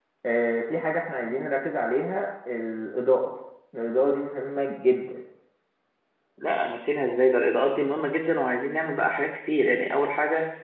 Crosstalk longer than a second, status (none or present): none